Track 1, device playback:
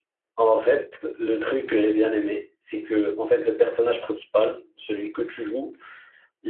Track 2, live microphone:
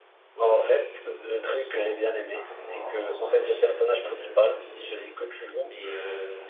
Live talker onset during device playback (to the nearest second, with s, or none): 0 s